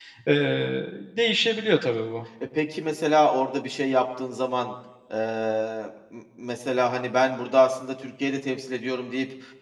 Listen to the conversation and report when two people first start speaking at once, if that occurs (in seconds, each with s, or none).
none